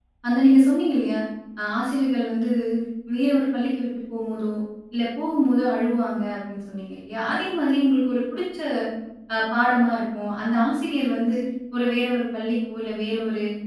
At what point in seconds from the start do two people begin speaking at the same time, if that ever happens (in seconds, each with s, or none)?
none